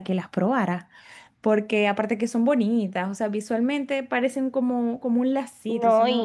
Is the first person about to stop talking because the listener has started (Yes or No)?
Yes